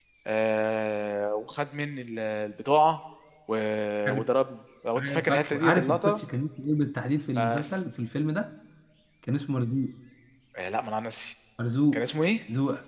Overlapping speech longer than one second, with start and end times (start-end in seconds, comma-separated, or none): 5.0-6.2